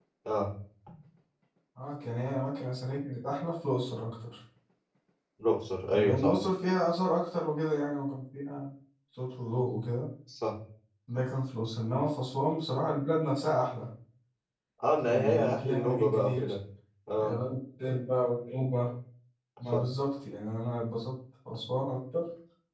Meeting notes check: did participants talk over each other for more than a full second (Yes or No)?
Yes